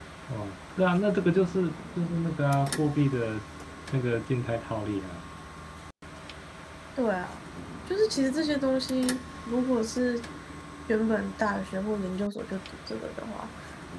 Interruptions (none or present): none